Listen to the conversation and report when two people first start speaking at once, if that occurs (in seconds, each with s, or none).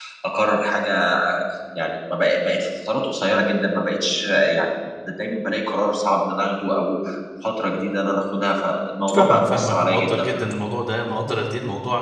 9.1 s